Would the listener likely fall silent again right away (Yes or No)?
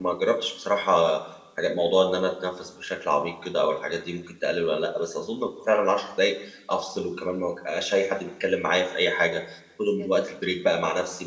Yes